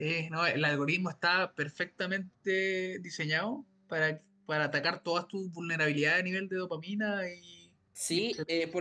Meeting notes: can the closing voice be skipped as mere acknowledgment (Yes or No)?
No